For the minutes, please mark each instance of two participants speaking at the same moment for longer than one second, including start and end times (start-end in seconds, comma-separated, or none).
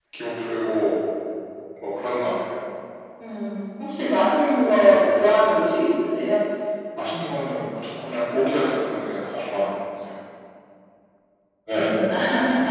none